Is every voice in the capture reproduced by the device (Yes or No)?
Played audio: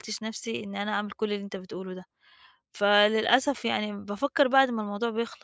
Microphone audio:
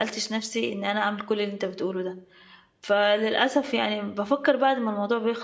Yes